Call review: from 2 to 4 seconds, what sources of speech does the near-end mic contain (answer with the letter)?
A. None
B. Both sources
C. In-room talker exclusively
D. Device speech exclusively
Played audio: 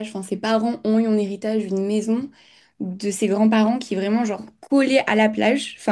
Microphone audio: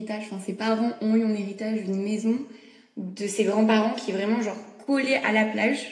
D